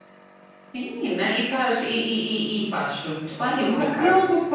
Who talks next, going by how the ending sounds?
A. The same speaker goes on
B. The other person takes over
B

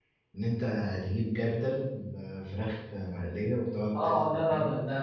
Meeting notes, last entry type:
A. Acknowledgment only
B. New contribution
B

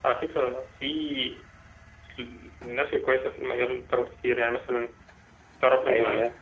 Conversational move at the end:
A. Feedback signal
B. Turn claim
A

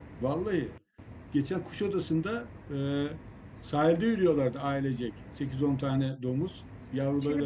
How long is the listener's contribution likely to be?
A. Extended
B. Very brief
A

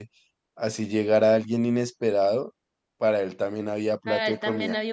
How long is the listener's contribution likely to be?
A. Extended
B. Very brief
A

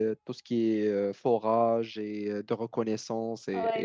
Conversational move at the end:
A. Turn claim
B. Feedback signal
A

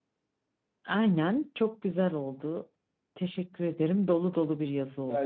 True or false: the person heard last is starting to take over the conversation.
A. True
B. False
A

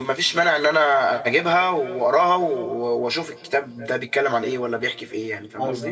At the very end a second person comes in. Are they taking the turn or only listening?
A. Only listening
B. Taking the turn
B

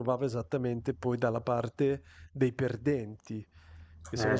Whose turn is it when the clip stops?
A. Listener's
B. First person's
B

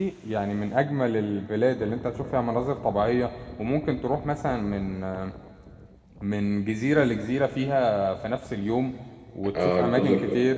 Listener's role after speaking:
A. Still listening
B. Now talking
B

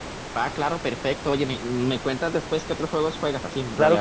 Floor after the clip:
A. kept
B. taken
B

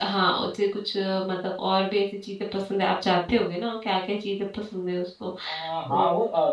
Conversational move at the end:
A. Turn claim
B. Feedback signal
A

